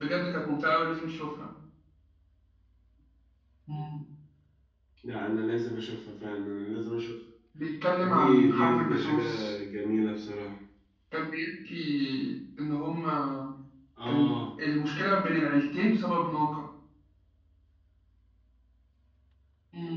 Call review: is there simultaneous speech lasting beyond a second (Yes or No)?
Yes